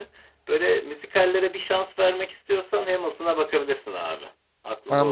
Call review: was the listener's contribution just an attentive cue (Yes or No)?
No